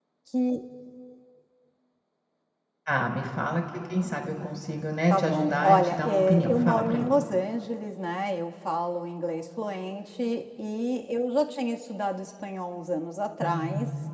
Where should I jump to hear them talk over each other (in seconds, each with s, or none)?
5.1 s